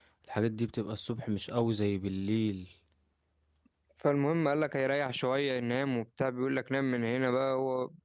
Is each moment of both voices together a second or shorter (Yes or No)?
Yes